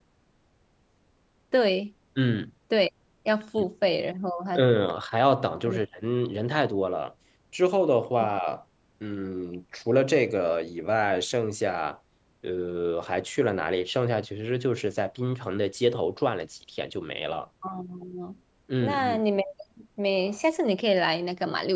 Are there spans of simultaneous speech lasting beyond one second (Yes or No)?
No